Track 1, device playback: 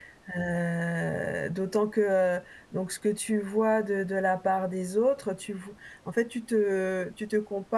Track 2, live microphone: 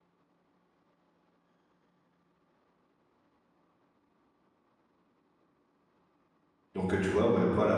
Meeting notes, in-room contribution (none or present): present